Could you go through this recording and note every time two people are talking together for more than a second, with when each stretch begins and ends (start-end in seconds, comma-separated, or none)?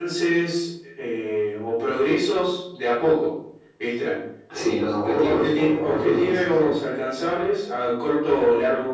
5.0-6.7